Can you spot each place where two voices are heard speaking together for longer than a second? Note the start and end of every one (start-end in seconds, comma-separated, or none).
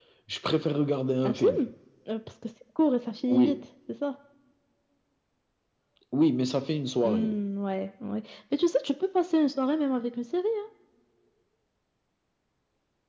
none